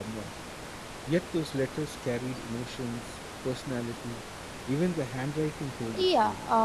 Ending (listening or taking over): taking over